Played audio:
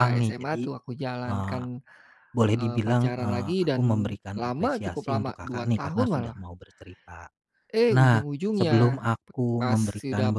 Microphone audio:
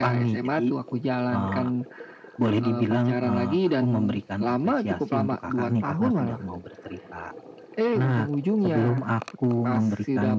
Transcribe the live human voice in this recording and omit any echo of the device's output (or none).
none